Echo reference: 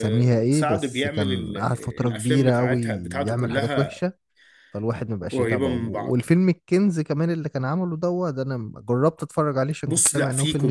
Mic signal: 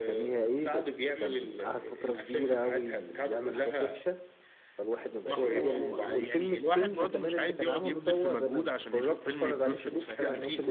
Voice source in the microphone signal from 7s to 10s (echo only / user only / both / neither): both